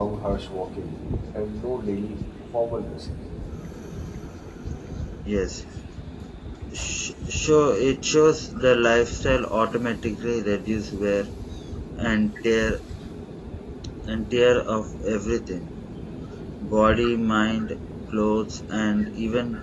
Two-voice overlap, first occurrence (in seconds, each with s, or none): none